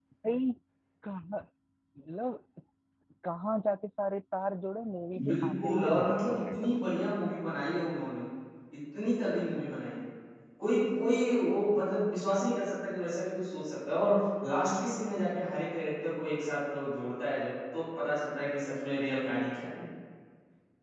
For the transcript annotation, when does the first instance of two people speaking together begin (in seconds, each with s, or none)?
5.1 s